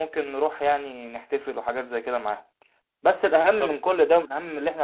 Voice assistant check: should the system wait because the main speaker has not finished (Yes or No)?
Yes